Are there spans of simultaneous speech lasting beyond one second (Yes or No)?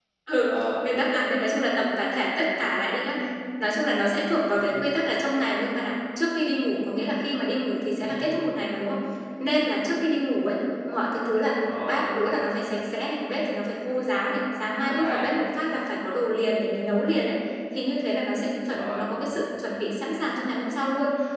No